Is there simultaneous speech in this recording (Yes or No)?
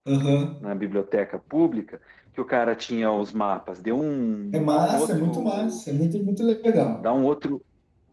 Yes